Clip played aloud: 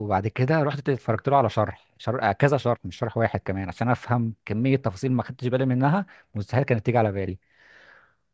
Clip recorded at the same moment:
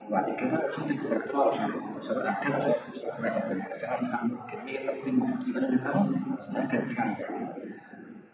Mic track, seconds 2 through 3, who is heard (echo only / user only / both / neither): echo only